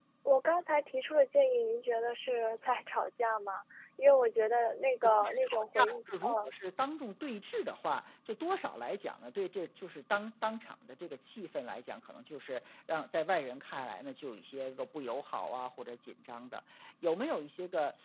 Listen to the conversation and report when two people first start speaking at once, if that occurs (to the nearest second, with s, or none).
5 s